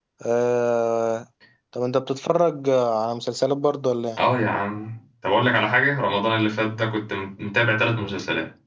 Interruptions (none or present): none